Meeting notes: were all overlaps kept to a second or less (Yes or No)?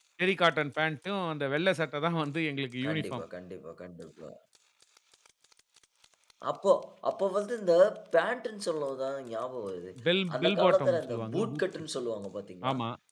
No